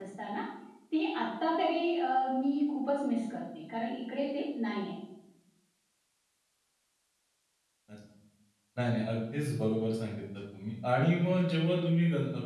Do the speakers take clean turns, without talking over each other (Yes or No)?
Yes